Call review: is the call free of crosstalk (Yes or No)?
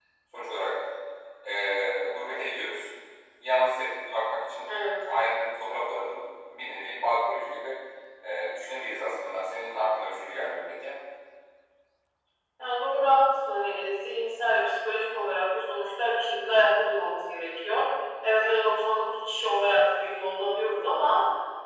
Yes